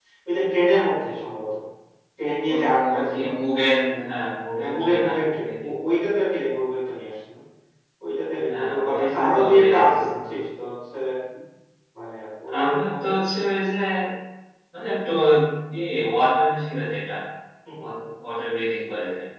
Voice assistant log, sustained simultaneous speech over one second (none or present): present